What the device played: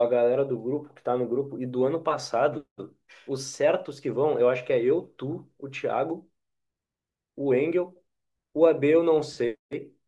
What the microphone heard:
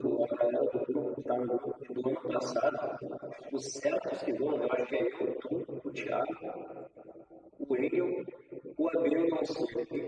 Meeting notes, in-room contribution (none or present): none